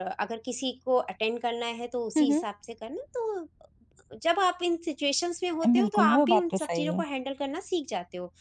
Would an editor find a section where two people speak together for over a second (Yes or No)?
Yes